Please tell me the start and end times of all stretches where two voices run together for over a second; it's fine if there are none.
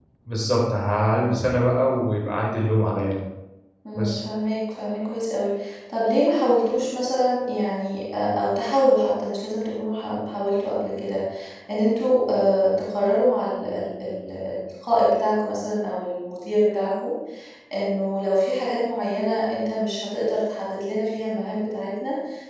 none

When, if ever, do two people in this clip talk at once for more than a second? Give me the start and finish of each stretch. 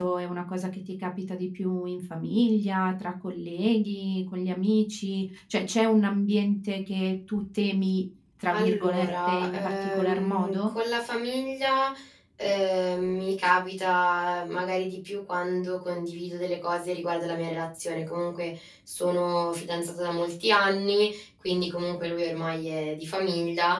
8.5-10.7

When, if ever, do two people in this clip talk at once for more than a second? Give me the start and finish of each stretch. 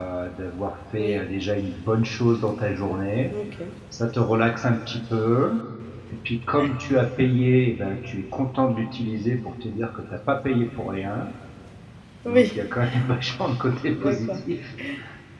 none

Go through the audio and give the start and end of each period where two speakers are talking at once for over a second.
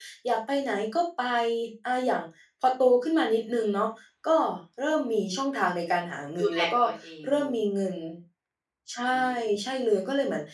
none

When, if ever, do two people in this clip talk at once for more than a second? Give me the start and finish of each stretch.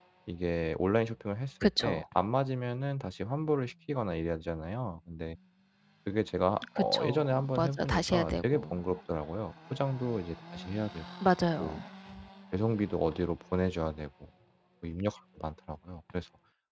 6.9-8.8

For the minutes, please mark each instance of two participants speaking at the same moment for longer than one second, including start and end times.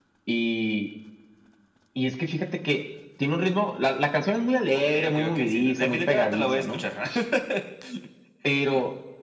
4.7-6.8

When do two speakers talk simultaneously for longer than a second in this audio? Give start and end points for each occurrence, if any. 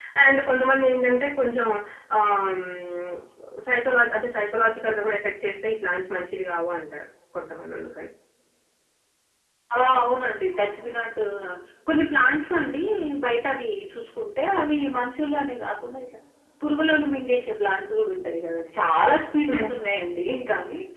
none

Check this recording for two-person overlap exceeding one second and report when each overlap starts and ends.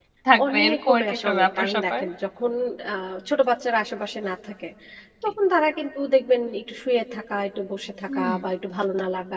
0.5-2.0

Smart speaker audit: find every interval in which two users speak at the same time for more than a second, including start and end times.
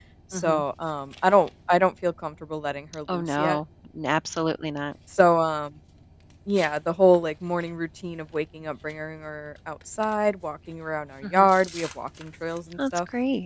none

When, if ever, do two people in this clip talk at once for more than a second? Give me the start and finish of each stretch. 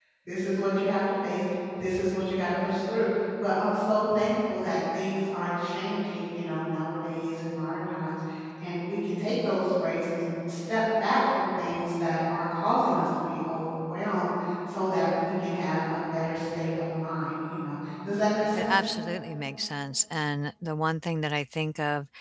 none

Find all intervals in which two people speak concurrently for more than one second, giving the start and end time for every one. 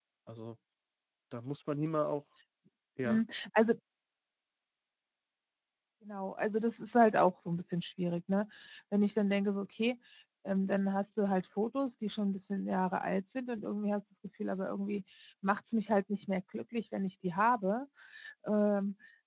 none

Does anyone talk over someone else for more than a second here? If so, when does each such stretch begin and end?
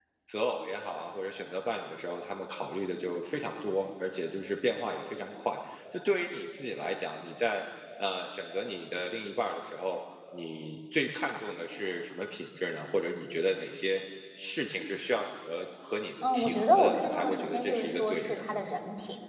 16.2-18.6

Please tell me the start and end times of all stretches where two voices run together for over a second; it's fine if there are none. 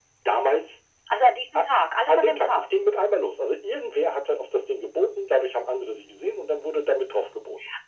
none

